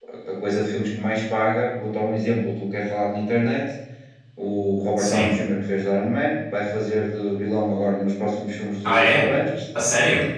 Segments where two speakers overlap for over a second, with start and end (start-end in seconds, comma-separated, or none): none